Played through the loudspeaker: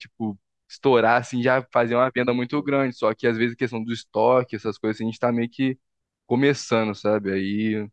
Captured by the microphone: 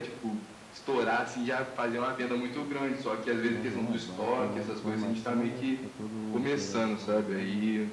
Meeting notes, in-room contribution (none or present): present